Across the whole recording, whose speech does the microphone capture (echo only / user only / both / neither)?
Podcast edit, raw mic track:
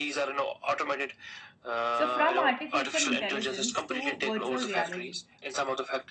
both